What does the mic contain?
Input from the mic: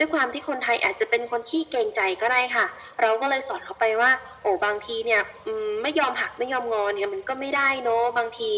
echo only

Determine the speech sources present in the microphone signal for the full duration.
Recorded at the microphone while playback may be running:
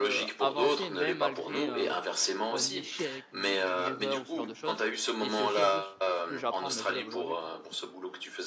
both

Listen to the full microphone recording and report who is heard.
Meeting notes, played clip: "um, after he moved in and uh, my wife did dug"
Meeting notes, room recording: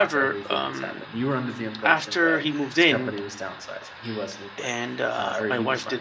both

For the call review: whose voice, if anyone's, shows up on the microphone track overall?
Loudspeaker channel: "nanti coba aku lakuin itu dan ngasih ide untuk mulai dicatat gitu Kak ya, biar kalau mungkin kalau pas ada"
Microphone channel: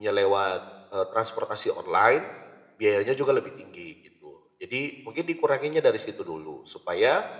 user only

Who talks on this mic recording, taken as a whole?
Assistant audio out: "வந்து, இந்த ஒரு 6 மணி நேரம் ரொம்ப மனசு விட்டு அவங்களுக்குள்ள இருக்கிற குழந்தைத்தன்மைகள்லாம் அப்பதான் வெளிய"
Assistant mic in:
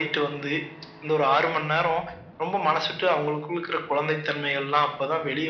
echo only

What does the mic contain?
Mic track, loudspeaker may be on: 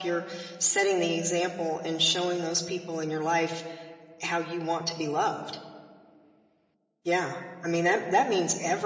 echo only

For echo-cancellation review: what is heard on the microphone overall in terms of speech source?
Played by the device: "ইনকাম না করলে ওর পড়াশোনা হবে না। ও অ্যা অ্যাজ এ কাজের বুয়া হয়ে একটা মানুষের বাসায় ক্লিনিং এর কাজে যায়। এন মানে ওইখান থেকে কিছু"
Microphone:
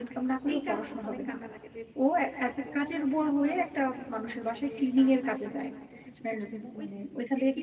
both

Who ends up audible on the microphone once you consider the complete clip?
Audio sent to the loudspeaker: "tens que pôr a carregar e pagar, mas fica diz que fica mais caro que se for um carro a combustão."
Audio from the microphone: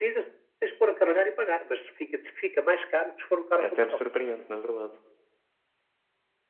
both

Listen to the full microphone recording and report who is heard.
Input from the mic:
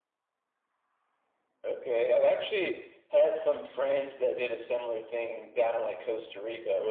echo only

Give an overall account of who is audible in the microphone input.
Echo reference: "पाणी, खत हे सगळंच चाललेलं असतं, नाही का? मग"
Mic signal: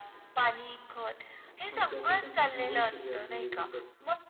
both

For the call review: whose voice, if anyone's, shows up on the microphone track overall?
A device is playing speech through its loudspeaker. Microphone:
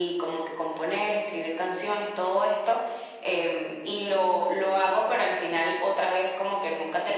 echo only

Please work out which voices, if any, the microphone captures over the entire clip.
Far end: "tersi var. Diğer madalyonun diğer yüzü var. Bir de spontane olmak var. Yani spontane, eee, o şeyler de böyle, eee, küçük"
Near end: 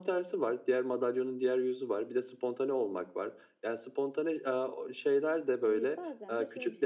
both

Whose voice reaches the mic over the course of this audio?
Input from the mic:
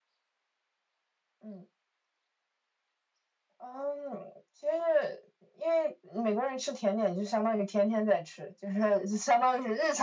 echo only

